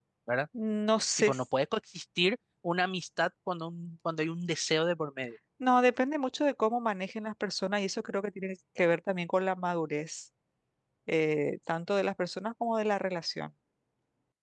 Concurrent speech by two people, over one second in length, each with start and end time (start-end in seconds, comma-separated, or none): none